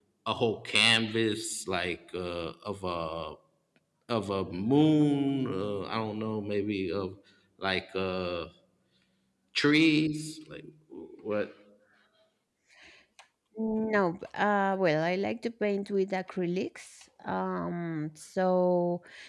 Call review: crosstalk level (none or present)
none